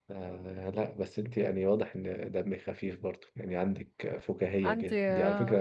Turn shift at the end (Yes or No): No